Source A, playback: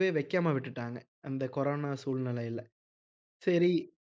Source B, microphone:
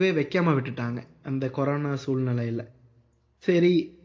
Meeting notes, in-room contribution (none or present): none